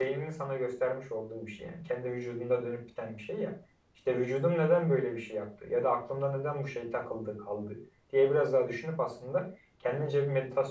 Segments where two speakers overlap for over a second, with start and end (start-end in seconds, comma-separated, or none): none